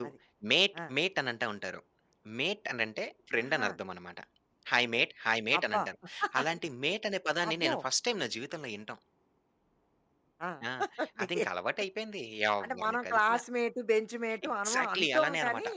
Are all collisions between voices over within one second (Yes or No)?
No